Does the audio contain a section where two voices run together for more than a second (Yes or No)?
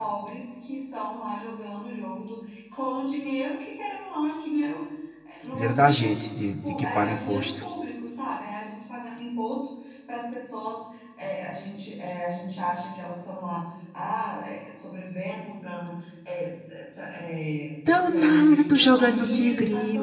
Yes